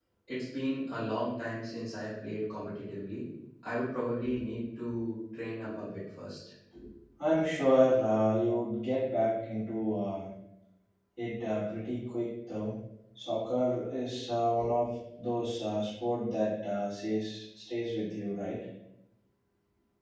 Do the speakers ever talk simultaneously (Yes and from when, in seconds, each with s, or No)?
No